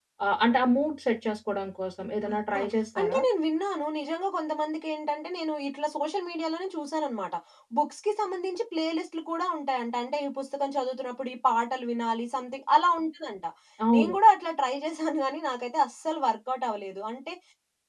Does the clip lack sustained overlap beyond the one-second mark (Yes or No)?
Yes